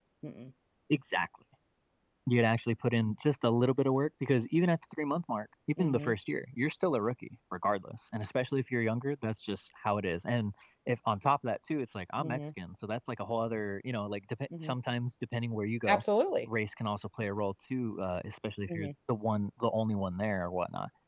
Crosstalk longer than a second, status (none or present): none